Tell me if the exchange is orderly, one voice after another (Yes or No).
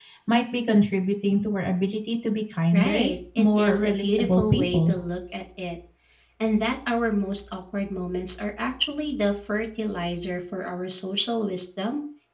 No